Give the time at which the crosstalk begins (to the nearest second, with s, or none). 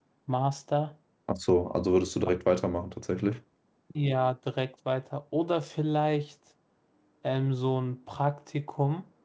none